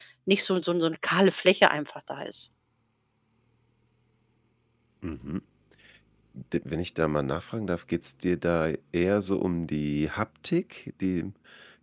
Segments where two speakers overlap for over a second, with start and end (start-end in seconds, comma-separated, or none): none